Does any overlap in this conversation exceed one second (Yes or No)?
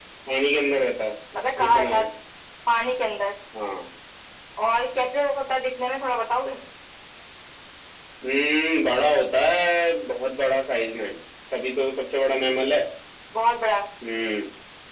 No